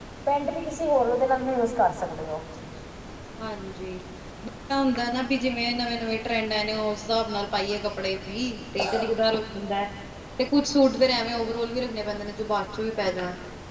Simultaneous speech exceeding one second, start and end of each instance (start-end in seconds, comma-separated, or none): none